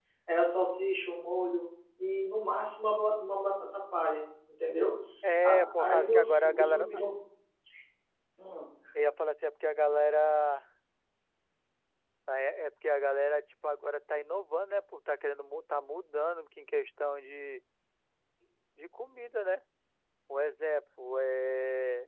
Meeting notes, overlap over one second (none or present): present